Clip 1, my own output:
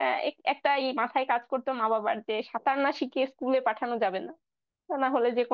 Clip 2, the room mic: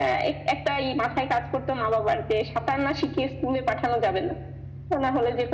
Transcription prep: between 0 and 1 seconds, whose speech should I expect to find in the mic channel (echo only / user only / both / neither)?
echo only